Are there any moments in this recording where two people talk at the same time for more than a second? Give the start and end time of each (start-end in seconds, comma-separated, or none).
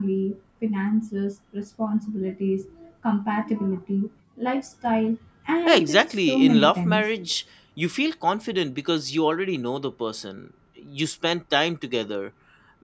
5.7-7.1